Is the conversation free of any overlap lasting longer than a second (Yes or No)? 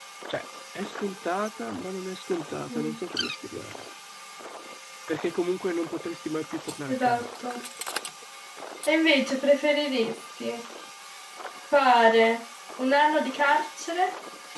Yes